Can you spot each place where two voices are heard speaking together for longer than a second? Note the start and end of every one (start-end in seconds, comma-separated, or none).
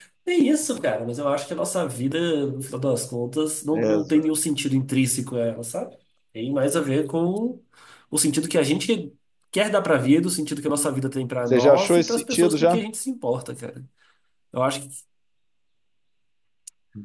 11.5-12.8